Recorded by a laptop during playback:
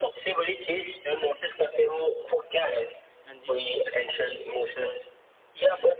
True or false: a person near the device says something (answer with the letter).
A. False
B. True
B